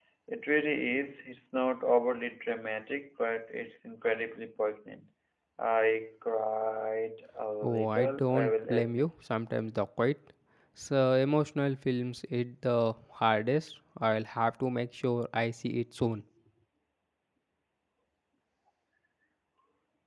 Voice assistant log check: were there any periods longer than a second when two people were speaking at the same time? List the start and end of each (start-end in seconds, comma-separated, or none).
7.6-9.1